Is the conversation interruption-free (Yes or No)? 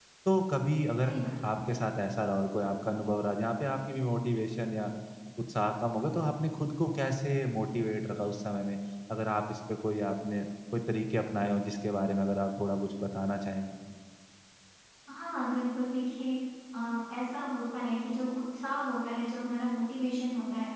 Yes